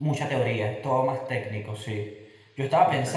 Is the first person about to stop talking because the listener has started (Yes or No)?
No